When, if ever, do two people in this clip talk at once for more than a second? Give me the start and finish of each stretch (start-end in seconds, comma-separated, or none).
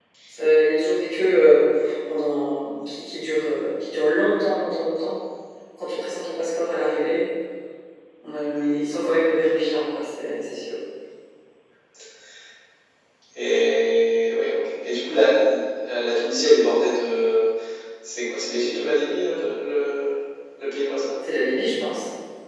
none